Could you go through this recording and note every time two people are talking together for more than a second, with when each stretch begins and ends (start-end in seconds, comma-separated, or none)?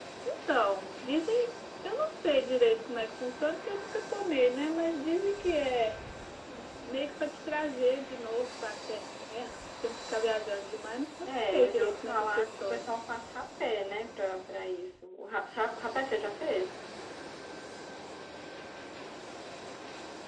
11.3-12.9